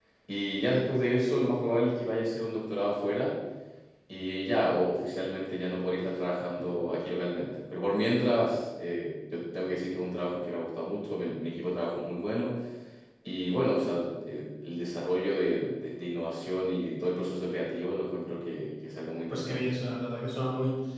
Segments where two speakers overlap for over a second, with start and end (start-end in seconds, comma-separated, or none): none